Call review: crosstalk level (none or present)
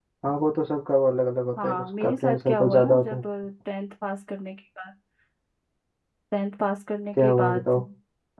present